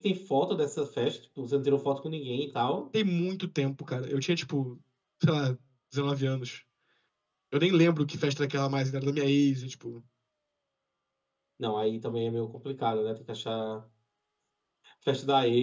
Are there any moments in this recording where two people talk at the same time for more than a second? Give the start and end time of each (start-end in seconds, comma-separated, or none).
none